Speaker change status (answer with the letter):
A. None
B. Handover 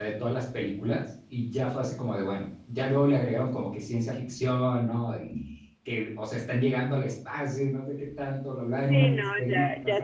B